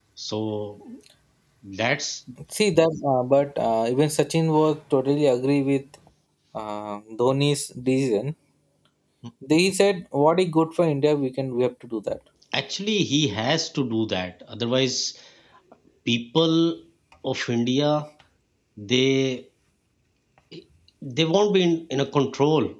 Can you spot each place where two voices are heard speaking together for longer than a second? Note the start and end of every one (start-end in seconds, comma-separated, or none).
none